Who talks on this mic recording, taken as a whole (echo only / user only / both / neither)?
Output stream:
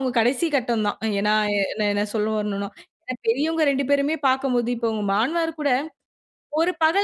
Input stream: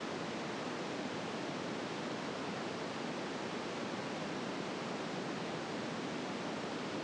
neither